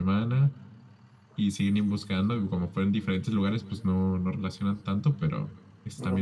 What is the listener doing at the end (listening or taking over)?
taking over